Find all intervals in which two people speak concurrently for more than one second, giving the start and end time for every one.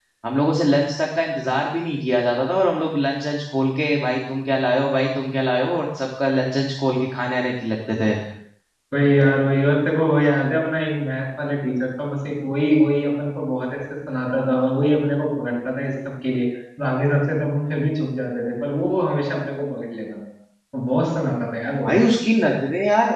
none

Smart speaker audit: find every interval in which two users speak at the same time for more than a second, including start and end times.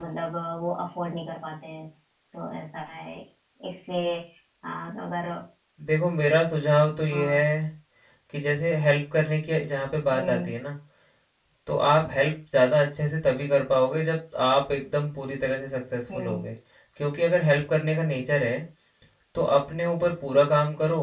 none

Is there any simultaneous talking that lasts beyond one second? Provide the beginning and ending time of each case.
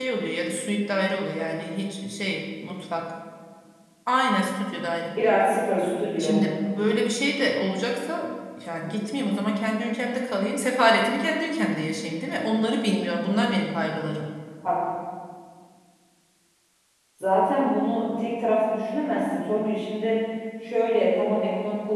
none

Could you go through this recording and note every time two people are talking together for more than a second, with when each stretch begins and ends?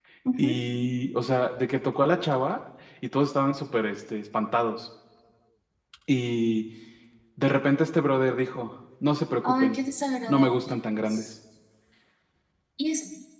none

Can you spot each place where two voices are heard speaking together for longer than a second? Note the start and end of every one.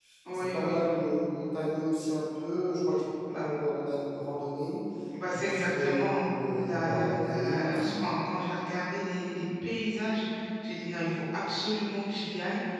5.3-7.9

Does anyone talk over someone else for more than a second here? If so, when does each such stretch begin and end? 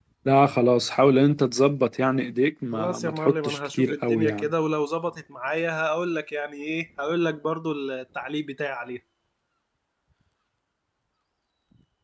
2.7-4.5

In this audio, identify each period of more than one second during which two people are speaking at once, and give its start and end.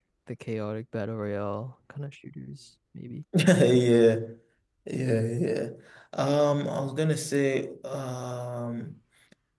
none

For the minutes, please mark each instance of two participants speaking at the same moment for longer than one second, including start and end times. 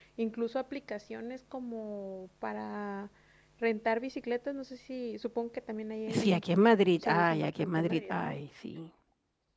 7.0-8.3

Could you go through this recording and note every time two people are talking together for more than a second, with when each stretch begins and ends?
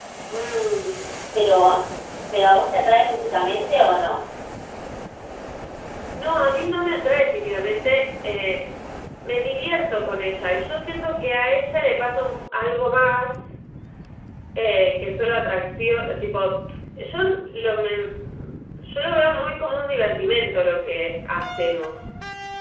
none

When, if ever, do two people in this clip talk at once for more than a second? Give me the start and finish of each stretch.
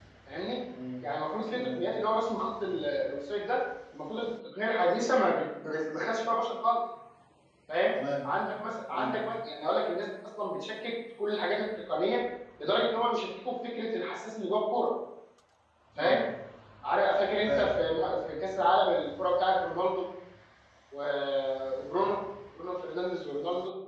none

